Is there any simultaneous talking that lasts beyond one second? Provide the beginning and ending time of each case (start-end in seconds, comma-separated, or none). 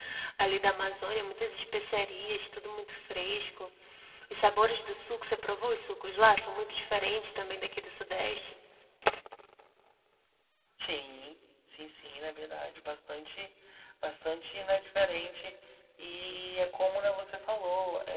none